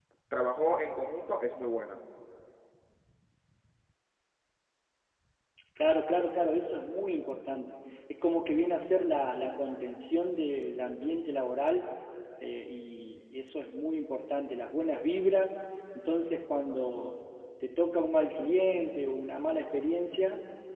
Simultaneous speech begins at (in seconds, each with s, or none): none